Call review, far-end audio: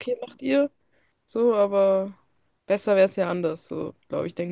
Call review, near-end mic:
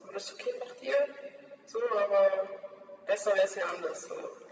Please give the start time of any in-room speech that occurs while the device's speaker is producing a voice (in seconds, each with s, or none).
none